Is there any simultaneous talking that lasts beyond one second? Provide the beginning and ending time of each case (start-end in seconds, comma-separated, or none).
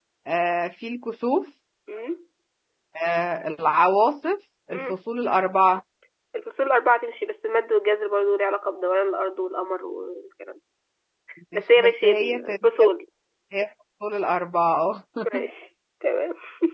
11.5-12.9